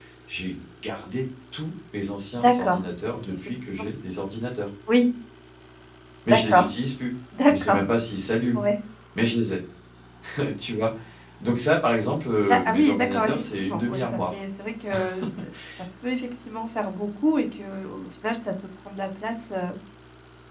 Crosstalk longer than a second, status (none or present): present